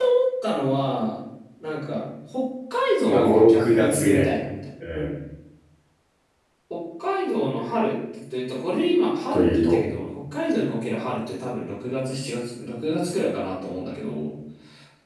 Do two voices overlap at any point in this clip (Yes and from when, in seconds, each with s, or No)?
Yes, from 3.1 s